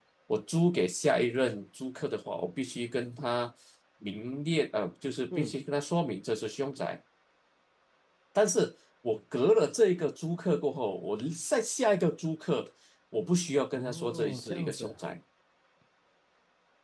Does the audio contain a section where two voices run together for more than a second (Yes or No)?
Yes